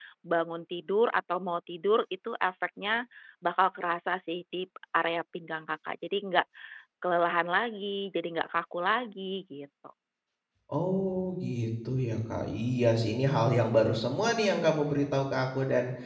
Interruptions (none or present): none